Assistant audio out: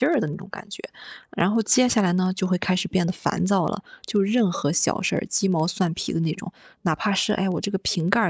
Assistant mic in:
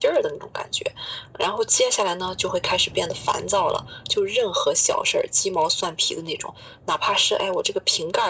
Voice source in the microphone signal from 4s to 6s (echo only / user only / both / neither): echo only